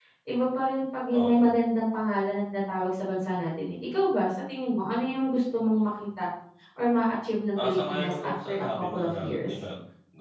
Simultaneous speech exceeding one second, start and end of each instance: 7.6-9.5

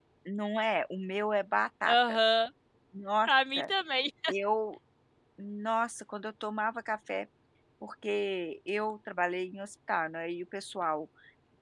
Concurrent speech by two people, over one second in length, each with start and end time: none

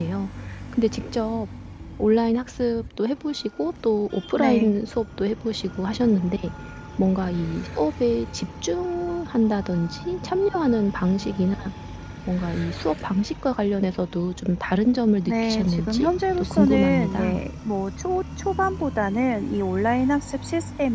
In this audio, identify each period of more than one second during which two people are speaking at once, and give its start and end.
15.2-17.4

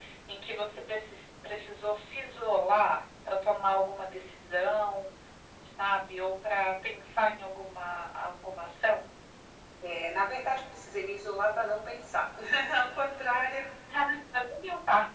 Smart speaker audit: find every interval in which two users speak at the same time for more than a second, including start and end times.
none

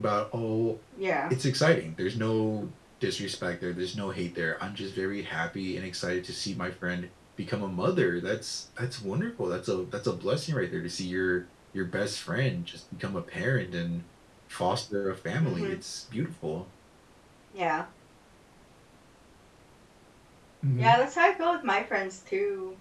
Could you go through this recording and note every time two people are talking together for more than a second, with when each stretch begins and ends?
none

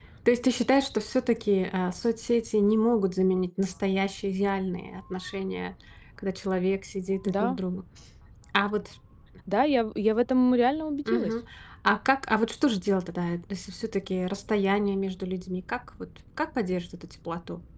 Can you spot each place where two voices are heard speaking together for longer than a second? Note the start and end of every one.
none

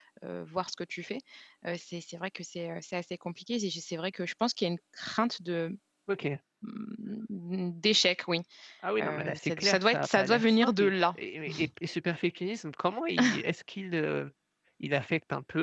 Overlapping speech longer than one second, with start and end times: 9.0-11.2

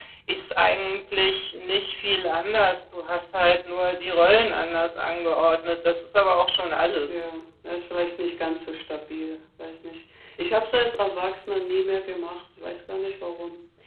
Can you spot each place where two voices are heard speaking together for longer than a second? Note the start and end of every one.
none

